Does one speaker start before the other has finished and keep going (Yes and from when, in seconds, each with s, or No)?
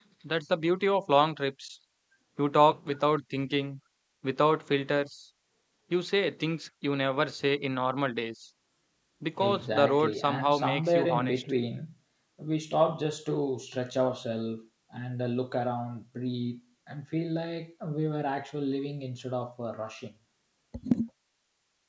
Yes, from 9.4 s